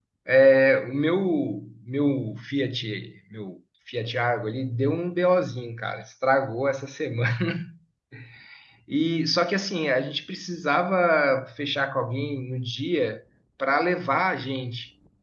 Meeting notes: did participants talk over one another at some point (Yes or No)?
No